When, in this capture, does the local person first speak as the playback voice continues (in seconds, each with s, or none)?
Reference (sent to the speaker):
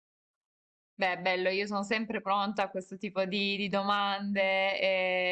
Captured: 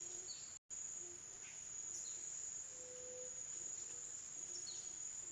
none